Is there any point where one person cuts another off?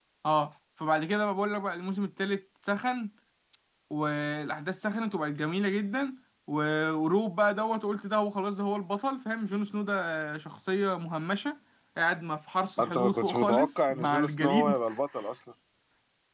Yes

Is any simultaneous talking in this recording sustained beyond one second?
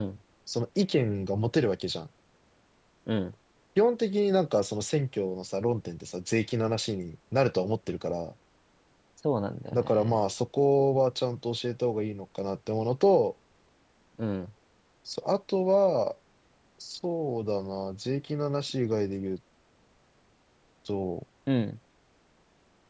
No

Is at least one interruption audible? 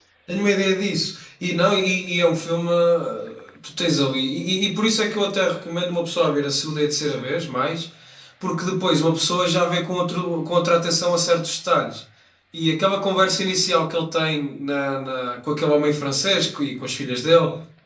No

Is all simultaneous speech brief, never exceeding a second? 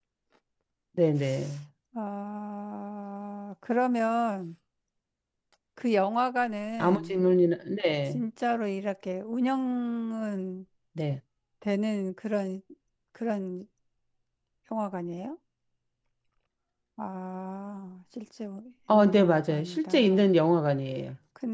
No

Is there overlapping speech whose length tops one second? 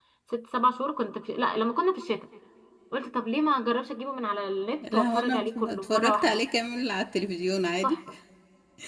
Yes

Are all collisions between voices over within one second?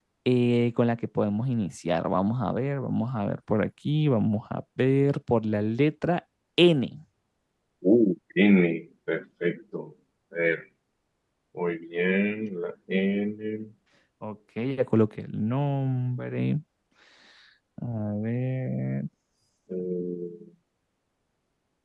Yes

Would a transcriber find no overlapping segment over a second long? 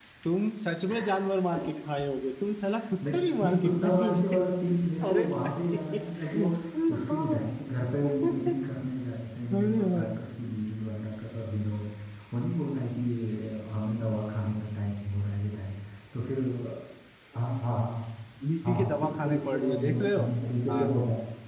No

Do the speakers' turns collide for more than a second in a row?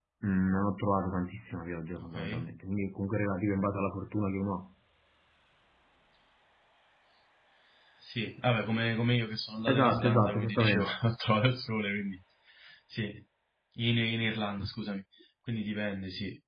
Yes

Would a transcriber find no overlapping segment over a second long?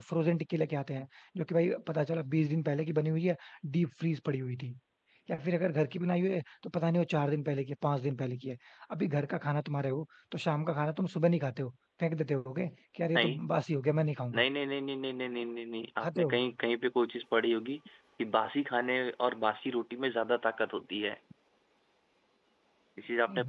Yes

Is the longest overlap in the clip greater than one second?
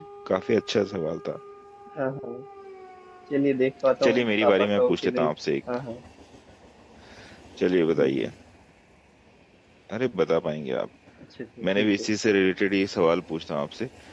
Yes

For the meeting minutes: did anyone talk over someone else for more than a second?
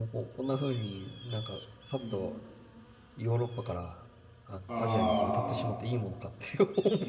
Yes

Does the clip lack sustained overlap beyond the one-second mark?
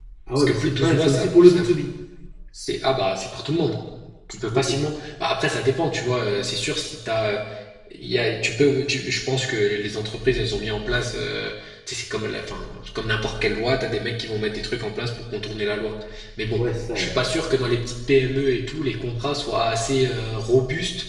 No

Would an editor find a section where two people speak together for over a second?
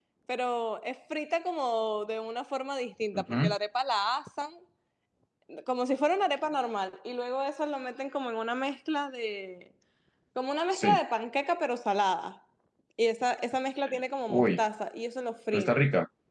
No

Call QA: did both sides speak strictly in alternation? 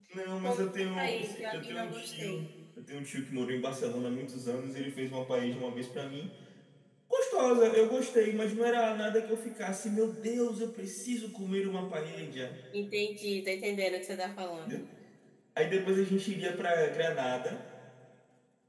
No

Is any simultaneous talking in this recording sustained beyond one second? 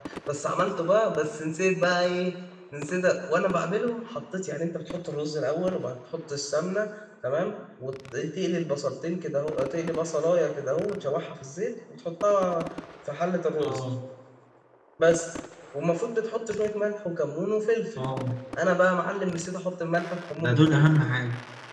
No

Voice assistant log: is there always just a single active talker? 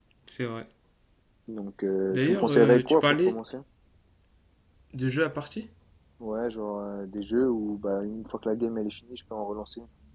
No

